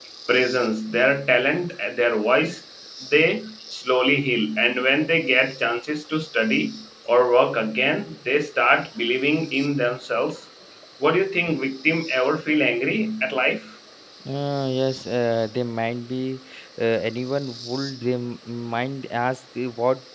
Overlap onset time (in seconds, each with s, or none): none